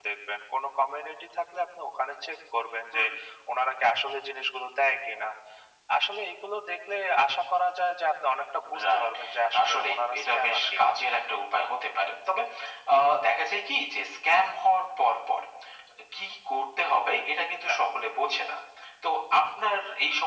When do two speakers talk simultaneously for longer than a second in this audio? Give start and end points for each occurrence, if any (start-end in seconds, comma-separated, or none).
9.6-10.9